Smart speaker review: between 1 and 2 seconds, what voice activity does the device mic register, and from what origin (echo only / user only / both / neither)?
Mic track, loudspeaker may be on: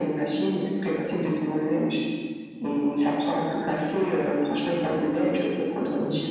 both